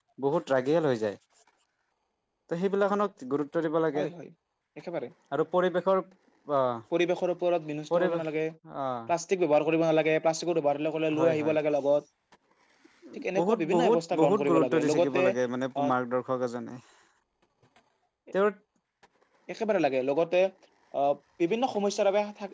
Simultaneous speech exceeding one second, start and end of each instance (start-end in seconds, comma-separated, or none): 13.4-15.3